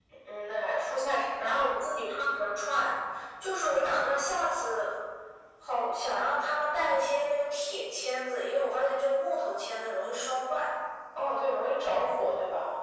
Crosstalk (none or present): none